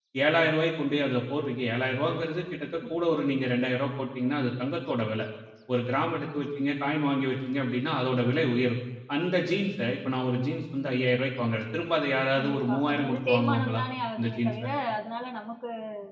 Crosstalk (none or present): present